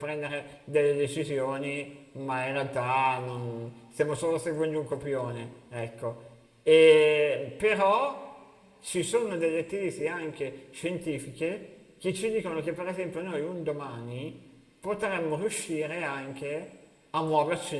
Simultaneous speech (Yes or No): No